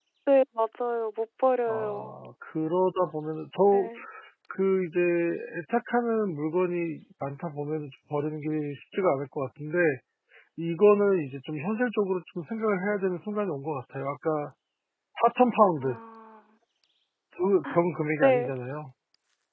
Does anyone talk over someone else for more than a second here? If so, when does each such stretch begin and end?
none

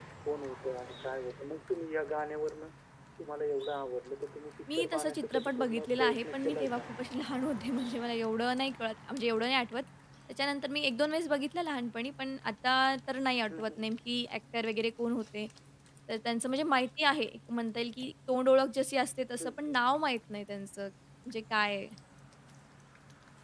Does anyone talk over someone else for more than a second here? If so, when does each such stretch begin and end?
4.7-6.8

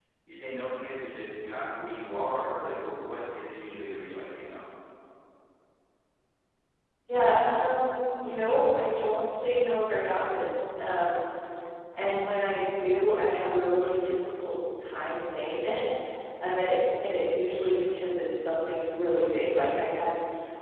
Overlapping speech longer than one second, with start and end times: none

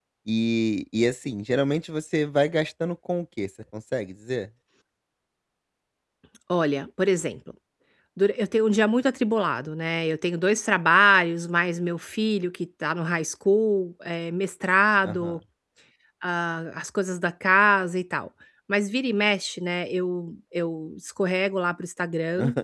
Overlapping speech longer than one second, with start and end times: none

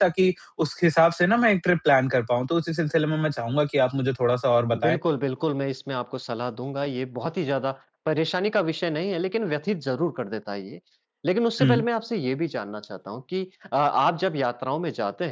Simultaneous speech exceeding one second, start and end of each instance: none

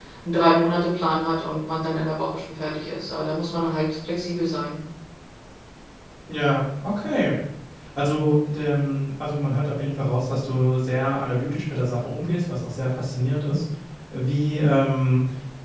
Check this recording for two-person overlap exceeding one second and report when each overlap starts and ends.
none

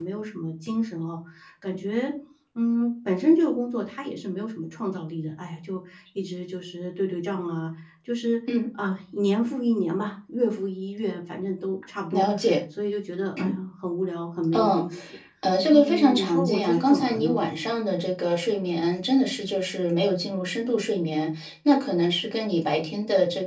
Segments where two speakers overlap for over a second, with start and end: 15.7-17.4

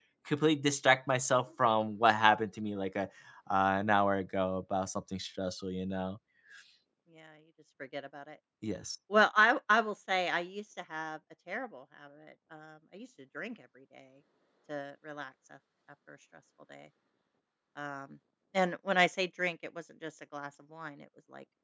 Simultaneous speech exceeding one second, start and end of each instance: none

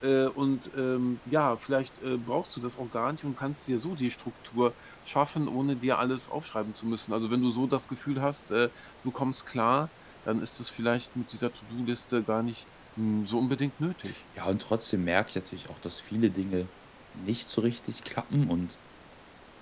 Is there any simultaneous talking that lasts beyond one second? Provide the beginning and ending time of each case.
none

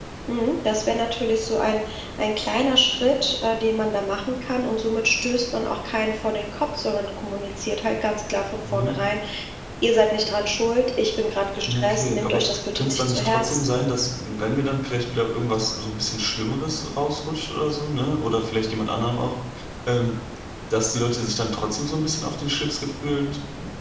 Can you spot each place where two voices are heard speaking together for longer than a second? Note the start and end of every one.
11.7-13.7

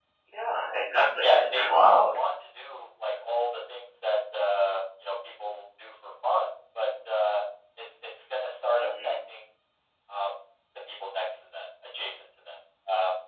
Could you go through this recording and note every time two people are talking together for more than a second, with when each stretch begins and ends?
0.9-2.2

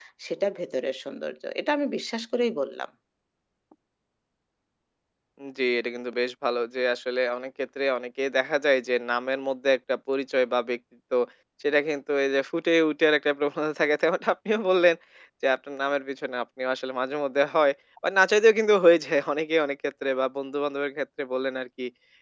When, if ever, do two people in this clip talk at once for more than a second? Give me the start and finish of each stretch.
none

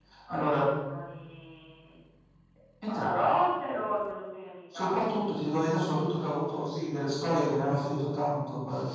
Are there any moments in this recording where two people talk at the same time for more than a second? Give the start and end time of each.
none

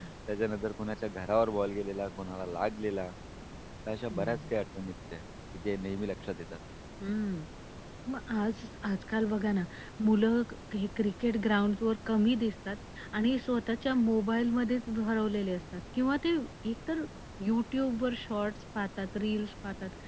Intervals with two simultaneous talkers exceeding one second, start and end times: none

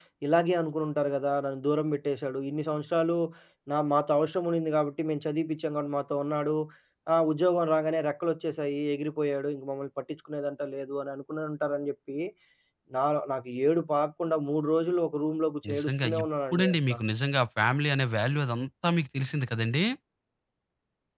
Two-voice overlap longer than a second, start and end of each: 15.7-16.9

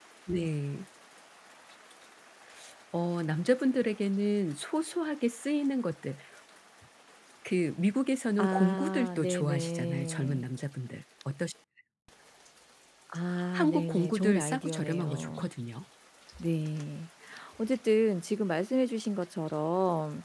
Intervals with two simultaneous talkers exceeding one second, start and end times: 8.4-10.4, 13.5-15.5

